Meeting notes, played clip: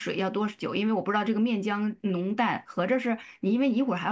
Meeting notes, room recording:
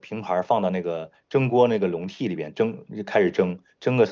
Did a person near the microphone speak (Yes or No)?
Yes